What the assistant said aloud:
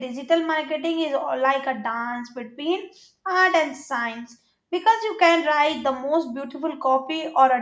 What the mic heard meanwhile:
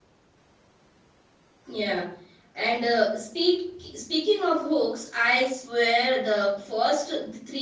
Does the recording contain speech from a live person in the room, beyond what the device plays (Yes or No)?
Yes